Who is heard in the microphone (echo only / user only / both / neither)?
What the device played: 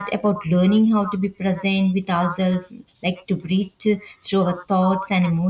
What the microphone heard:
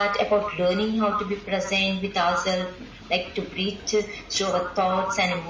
echo only